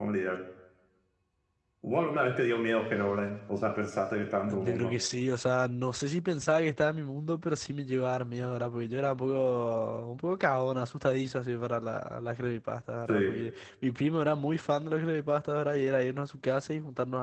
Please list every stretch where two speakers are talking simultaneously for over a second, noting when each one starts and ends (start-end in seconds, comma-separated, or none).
none